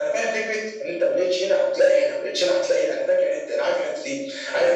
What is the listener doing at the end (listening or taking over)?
listening